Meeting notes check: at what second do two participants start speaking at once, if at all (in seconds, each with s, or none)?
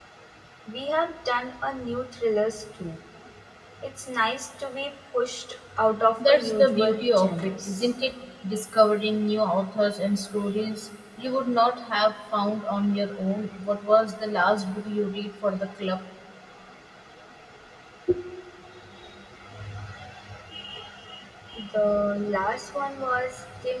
6.2 s